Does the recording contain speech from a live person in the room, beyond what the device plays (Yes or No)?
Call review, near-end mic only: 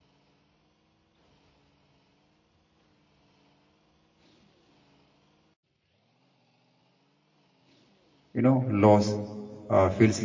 Yes